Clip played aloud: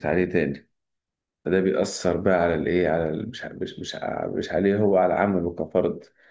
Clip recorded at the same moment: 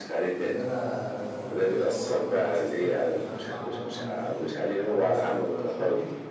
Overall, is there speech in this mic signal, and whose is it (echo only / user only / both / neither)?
both